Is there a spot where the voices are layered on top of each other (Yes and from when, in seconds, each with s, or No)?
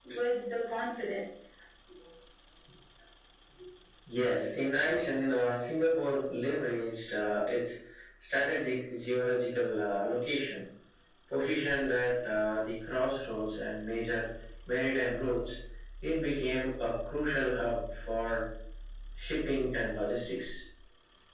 No